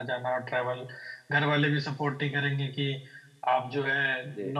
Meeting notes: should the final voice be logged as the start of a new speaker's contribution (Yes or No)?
No